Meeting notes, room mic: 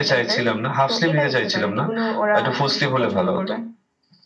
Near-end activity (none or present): none